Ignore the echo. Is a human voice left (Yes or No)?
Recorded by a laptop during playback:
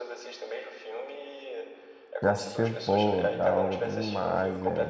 Yes